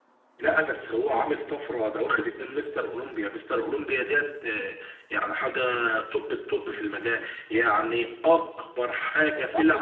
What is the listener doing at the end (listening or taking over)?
taking over